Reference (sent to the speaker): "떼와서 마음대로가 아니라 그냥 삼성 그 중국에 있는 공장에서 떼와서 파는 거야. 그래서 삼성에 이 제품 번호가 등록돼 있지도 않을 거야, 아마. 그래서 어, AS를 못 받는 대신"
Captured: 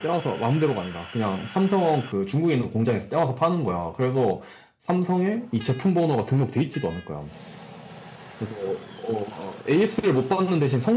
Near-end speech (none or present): none